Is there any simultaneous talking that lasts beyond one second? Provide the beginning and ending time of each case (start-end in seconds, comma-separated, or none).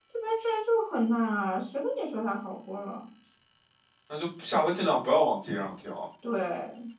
none